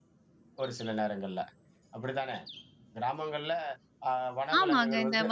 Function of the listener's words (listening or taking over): taking over